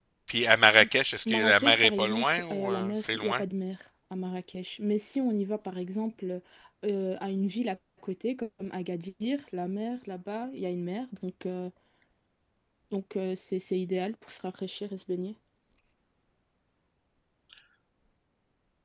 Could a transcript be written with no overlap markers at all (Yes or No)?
No